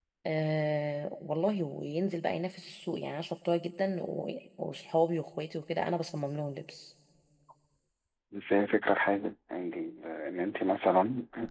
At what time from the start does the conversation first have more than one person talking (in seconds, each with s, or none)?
none